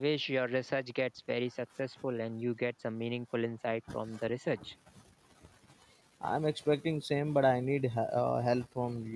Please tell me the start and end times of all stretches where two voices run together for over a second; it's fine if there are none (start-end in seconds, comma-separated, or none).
none